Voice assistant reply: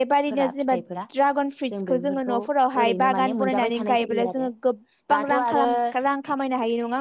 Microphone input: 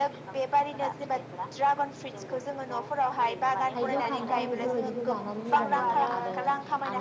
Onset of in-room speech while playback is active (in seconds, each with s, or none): 3.8 s